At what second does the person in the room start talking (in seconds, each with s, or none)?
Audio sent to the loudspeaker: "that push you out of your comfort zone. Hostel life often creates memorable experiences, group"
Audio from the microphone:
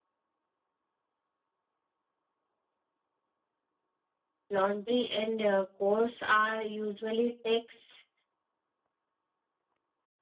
4.5 s